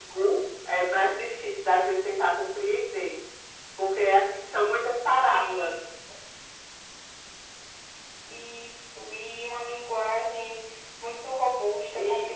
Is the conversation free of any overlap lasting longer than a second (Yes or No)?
Yes